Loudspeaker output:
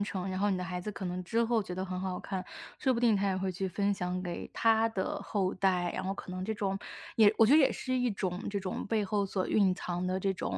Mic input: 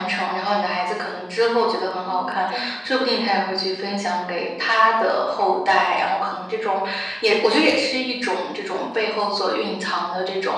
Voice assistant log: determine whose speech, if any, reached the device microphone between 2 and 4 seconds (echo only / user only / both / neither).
both